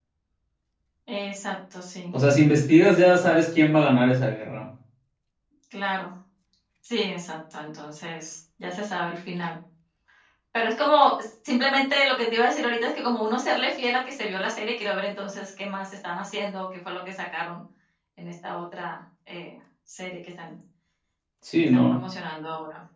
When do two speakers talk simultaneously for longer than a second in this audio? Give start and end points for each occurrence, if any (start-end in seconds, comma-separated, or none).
none